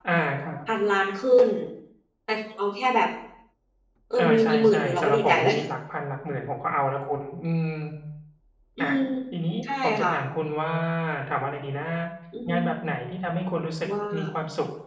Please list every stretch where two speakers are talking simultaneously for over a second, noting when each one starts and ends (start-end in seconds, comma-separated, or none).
4.2-5.5